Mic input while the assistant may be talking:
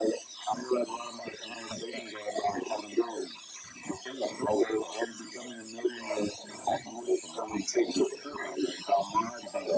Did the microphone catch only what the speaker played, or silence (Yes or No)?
Yes